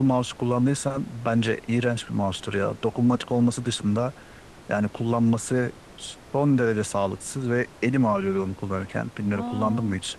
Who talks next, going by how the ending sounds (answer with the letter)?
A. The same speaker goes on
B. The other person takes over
B